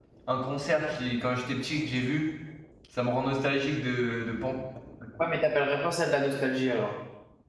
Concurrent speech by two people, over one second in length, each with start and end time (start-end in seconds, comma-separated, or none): none